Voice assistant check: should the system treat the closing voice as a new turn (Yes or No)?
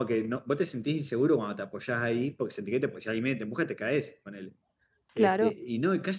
No